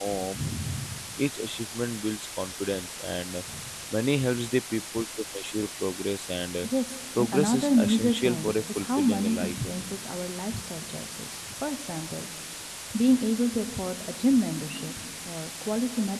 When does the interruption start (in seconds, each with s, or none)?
7.2 s